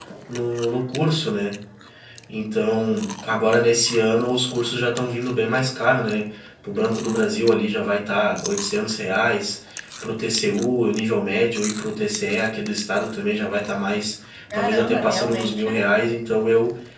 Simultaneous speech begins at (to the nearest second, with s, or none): 15 s